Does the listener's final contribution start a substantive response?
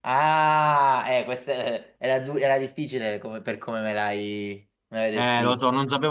Yes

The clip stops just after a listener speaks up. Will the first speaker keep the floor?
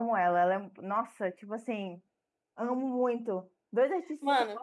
Yes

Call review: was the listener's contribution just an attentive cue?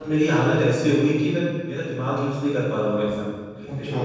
Yes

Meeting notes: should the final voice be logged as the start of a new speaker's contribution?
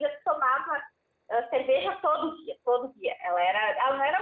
No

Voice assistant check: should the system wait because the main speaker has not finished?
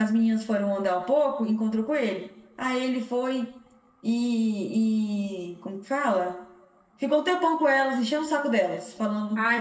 No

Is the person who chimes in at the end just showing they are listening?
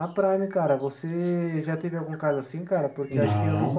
Yes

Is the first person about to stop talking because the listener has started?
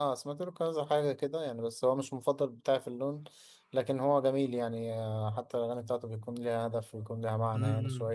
Yes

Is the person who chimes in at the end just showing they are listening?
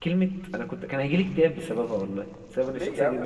No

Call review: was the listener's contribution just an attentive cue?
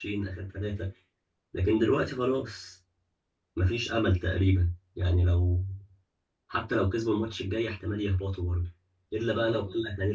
Yes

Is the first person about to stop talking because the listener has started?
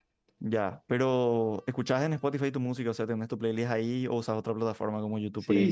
Yes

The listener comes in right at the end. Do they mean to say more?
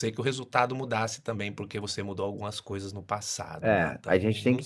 Yes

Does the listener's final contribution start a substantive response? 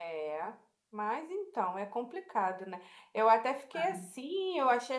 No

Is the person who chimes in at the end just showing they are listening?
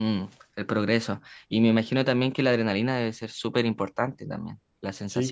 No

